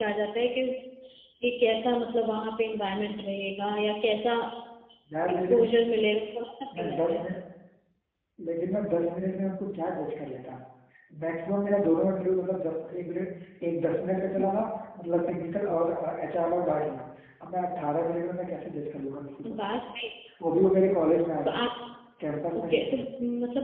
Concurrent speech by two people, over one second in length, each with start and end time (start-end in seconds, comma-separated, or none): none